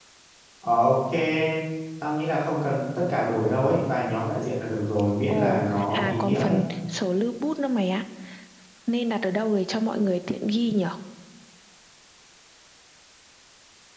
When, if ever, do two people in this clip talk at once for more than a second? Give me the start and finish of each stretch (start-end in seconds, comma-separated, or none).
5.3-6.6